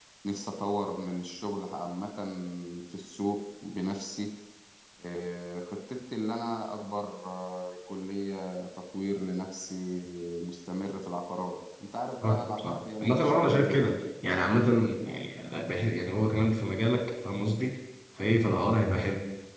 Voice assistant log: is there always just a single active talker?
No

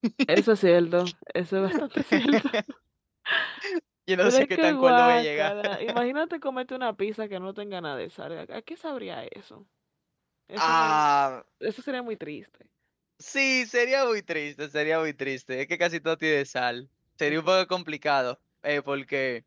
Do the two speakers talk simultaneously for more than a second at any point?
Yes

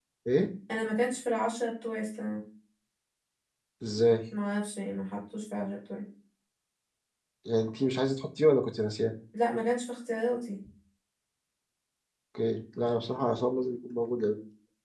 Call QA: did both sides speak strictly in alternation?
Yes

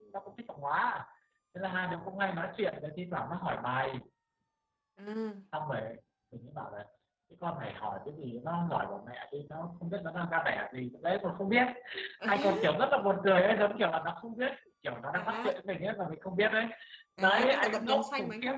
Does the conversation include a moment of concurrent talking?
Yes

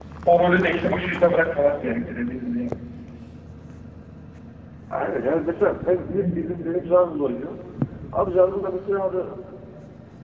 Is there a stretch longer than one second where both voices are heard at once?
No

